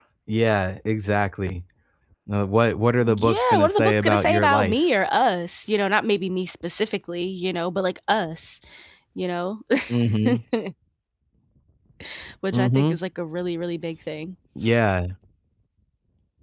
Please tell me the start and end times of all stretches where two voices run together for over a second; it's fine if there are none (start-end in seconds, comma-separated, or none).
3.0-4.8